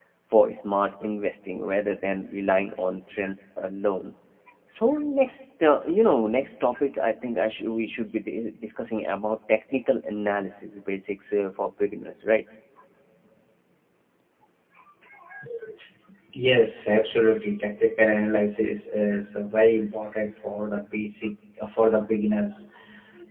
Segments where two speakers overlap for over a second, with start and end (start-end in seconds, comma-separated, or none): none